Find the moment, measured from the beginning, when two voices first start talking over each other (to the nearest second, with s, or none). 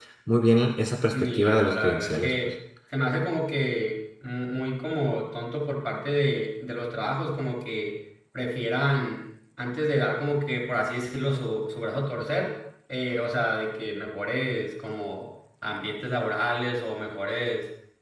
1 s